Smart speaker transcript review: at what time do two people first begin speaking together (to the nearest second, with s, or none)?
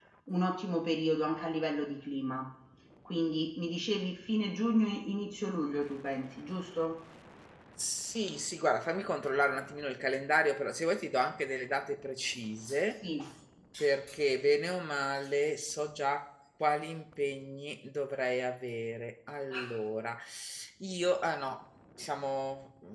none